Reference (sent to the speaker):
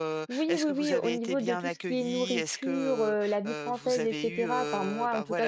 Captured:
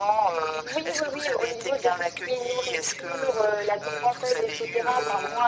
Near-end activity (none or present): none